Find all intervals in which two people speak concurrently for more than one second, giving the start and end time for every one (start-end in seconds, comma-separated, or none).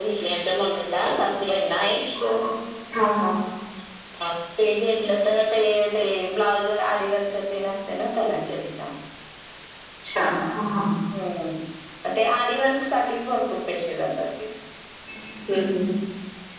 none